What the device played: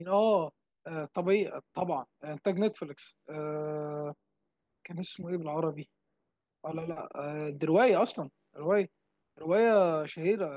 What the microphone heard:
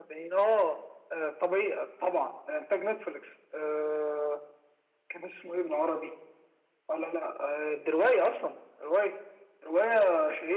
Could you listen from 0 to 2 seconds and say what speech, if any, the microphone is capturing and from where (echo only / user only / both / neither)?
echo only